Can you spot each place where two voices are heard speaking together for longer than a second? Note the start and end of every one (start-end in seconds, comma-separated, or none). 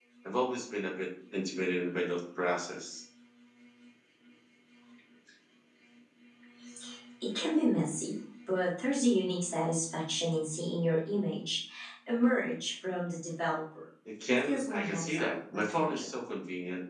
14.3-16.2